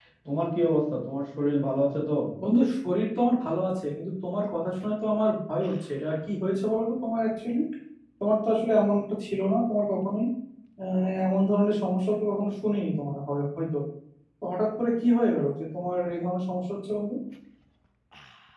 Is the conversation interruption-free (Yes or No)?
Yes